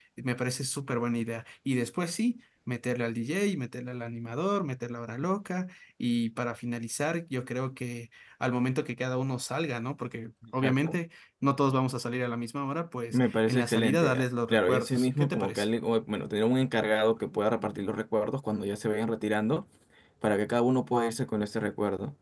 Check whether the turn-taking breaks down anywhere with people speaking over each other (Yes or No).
Yes